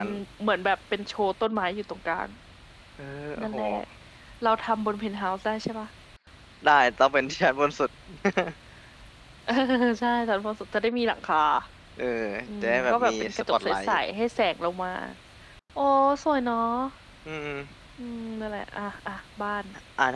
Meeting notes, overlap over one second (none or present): present